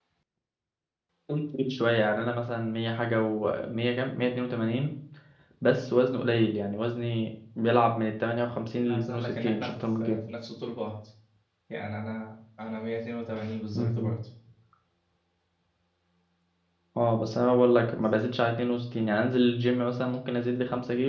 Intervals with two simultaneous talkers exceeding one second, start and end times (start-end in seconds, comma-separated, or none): 8.9-10.2